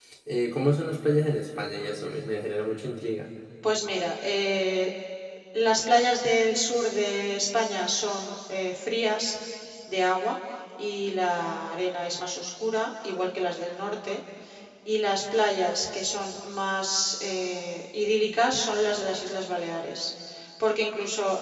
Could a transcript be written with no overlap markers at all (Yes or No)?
Yes